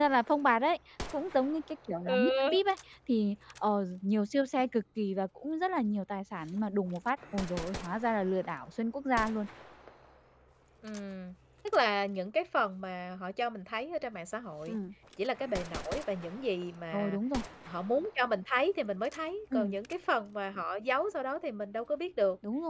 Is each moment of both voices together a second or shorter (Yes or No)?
Yes